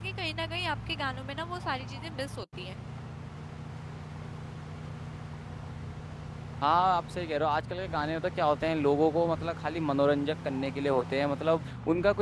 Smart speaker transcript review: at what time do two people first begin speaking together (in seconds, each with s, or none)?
none